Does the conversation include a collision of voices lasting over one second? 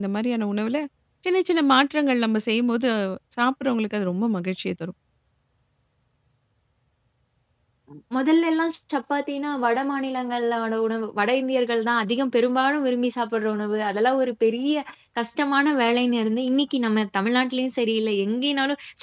No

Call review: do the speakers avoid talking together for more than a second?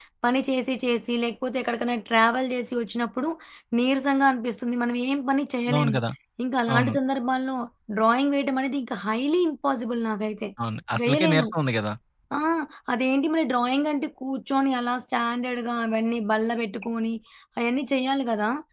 Yes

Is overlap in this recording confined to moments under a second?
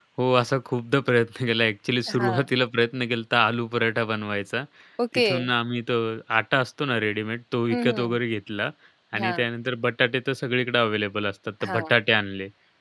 Yes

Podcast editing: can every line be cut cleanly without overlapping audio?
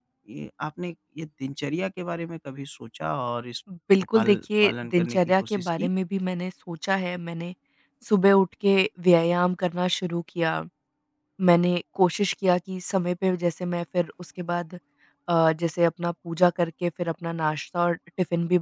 No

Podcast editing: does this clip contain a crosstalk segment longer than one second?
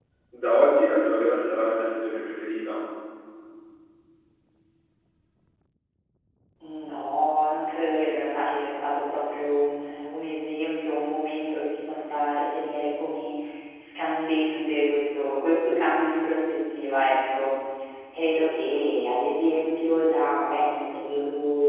No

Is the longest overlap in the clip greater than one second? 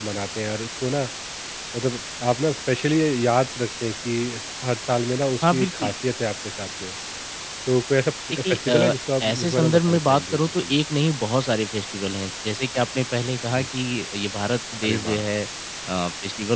Yes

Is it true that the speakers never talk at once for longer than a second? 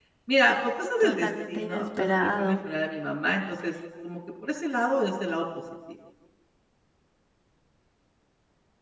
No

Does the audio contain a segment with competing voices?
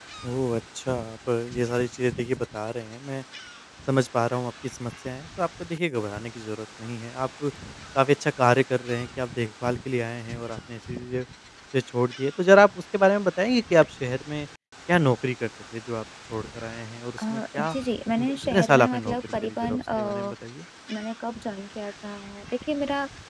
Yes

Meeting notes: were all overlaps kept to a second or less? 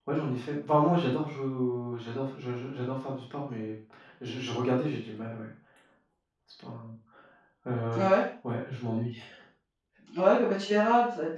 Yes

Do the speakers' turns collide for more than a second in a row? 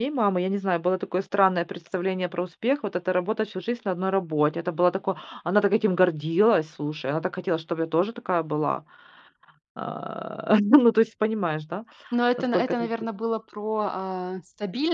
No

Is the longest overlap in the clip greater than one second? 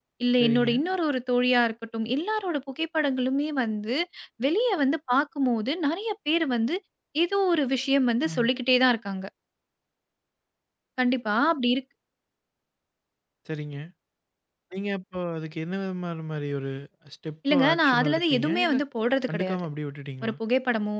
Yes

